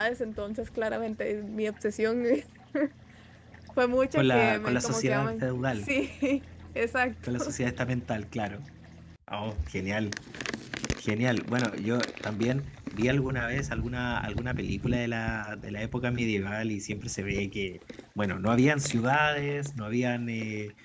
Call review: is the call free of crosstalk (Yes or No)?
No